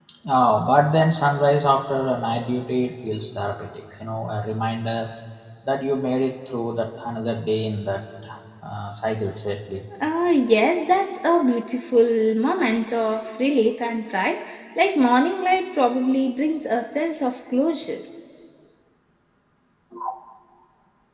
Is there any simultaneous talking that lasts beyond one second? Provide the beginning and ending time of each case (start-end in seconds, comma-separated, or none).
none